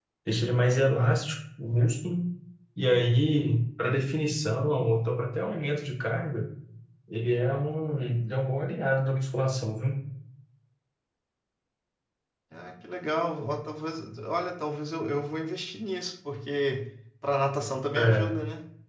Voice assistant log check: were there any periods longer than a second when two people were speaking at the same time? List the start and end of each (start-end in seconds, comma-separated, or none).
none